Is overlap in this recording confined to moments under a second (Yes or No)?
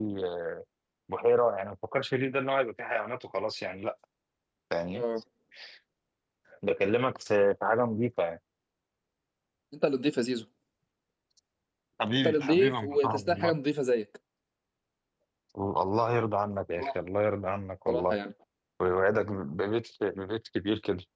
No